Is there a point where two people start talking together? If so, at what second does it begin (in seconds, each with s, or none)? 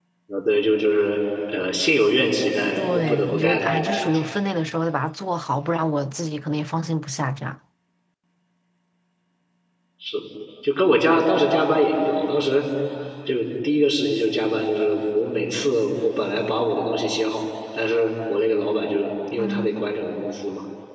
2.8 s